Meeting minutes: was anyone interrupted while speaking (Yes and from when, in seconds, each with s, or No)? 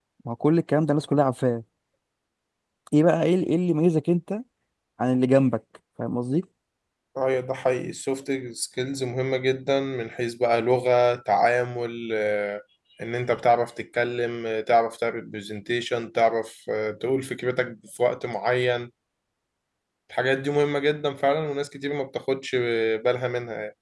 No